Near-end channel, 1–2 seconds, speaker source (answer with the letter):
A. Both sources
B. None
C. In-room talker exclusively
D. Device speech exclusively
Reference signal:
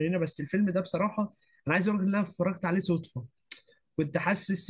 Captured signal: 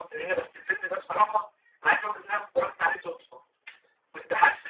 D